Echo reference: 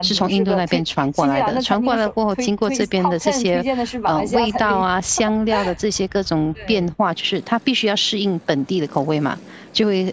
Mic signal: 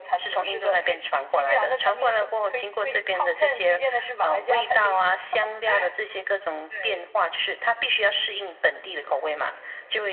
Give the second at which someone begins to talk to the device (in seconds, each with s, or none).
none